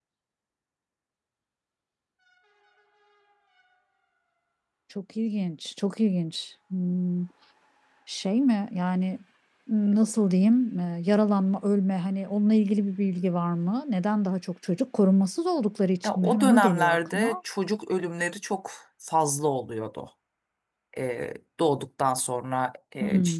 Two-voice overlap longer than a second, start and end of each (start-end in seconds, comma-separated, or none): 16.1-17.4